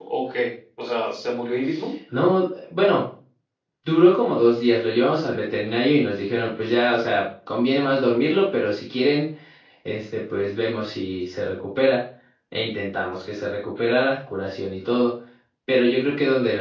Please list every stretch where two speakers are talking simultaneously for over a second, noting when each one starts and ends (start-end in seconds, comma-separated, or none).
none